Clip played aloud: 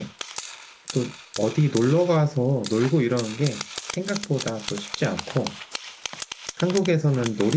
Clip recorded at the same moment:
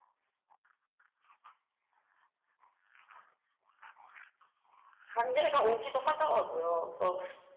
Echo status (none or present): none